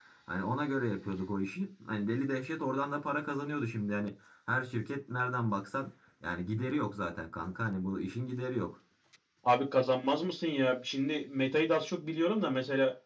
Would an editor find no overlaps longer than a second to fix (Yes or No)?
Yes